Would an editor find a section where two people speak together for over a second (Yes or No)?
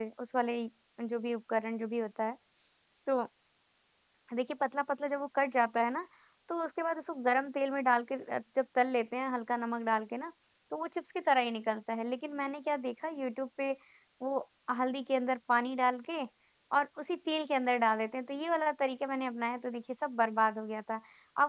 No